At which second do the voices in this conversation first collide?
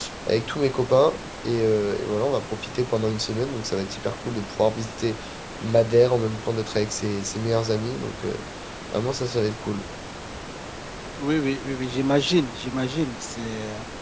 none

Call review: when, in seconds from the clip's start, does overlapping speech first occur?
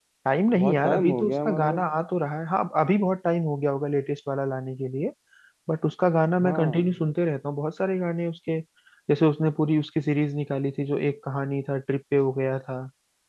0.6 s

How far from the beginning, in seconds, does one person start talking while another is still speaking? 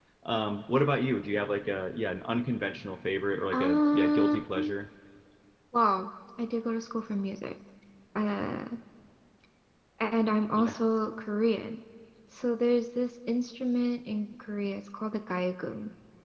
3.5 s

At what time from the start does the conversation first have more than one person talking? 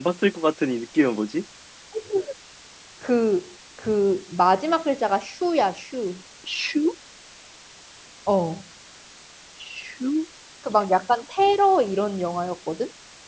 none

